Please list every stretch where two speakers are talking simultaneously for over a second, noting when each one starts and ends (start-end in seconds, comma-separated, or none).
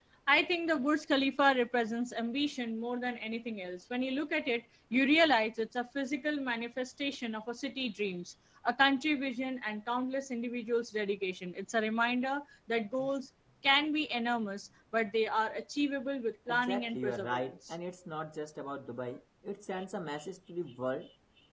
16.5-17.8